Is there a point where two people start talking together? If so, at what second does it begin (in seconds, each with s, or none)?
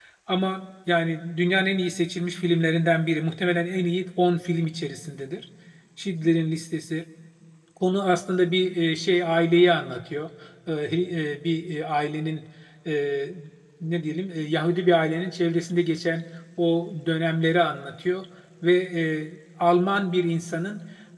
none